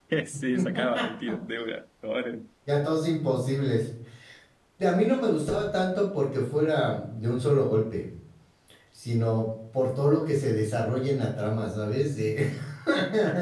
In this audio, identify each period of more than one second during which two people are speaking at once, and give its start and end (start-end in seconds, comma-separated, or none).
none